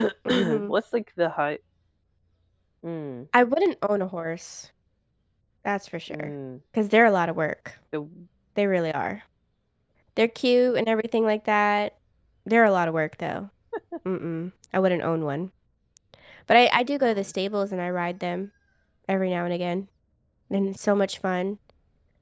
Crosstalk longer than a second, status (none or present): none